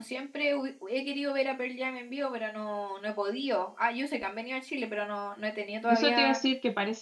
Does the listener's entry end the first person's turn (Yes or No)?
Yes